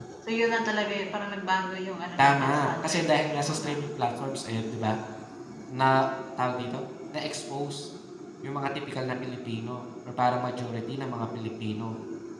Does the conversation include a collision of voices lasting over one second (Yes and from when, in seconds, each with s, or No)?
Yes, from 2.2 s